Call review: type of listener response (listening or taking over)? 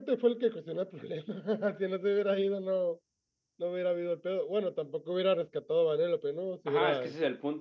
taking over